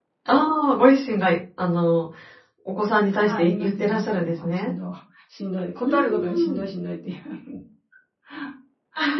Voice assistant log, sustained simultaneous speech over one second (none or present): present